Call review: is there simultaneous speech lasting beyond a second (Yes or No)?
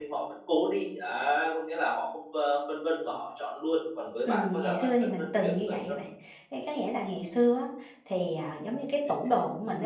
Yes